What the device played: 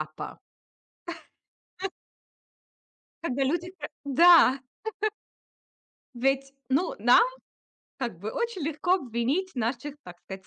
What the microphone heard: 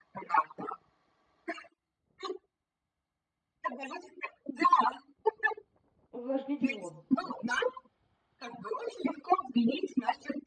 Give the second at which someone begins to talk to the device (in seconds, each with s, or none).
6.1 s